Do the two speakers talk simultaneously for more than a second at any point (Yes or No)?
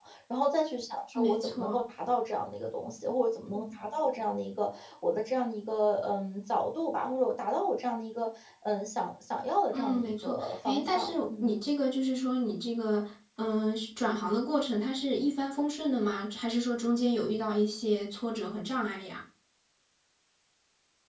Yes